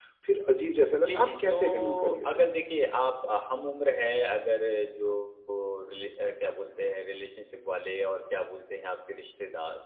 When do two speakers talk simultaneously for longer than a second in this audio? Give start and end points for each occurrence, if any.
0.9-2.5

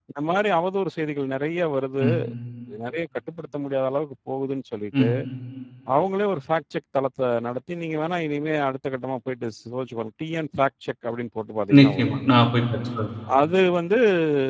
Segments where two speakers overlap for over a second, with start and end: none

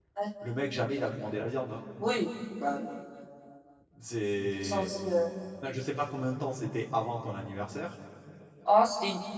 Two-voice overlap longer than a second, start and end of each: none

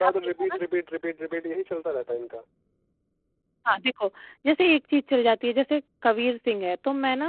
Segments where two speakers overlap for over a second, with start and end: none

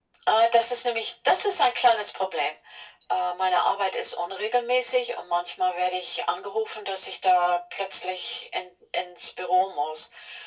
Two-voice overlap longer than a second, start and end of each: none

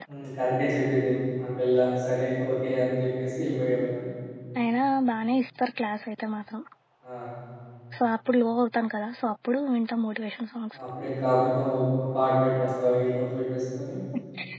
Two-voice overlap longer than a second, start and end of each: none

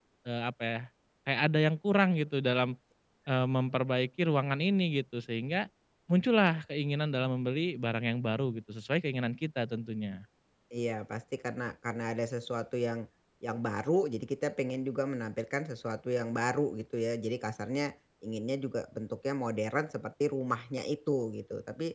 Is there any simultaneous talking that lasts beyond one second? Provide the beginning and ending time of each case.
none

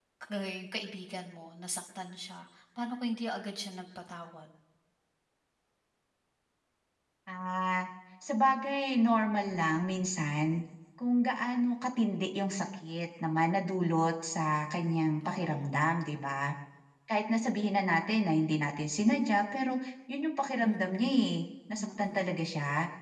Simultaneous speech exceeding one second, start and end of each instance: none

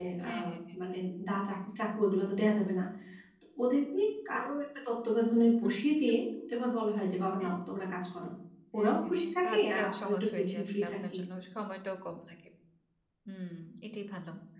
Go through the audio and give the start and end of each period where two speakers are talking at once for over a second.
8.8-11.2

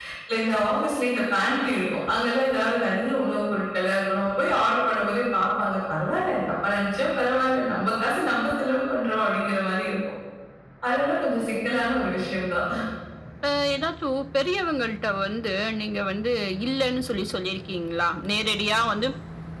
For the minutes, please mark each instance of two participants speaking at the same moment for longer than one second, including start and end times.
none

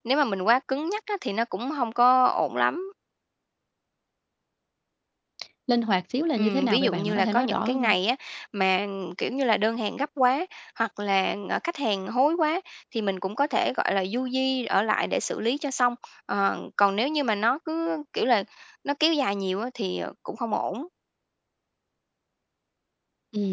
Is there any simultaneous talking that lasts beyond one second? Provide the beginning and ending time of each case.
6.4-8.0

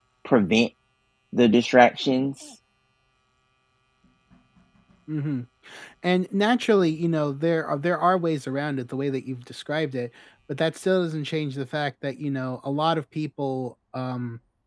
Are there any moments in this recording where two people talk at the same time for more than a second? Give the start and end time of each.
none

